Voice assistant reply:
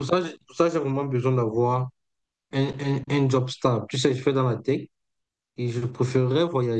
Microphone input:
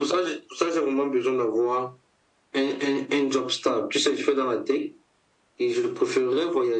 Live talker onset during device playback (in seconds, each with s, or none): none